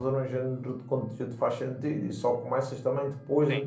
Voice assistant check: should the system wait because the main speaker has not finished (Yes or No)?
Yes